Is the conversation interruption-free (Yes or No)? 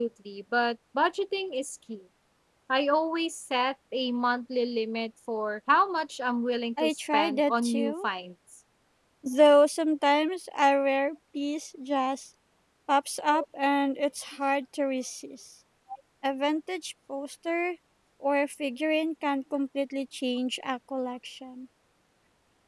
No